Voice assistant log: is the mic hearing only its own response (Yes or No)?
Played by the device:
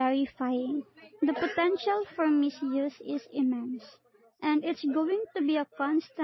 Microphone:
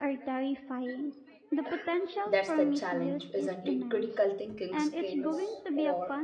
No